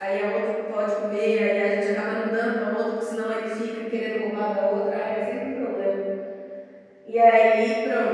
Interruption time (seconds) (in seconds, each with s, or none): none